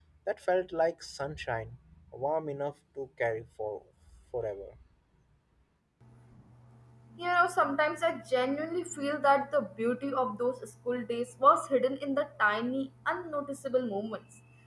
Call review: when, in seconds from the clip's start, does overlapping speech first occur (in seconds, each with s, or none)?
none